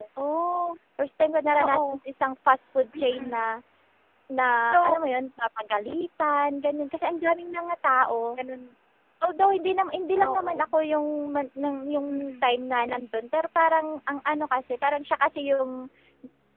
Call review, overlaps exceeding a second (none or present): none